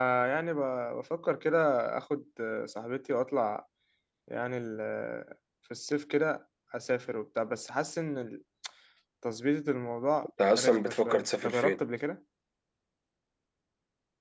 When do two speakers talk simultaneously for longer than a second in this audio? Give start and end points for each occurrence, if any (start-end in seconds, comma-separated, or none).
10.6-11.8